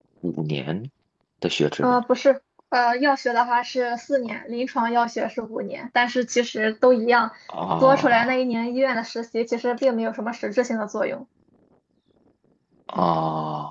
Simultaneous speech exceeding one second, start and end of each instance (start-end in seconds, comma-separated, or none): none